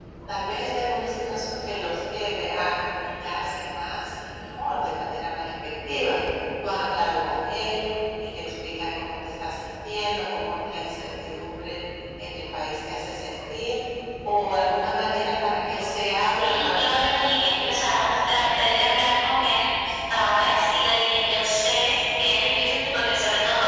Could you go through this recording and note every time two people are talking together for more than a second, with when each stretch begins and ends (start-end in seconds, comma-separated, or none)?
16.2-18.6